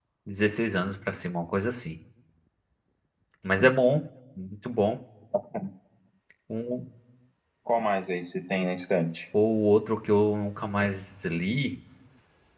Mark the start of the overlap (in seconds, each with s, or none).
none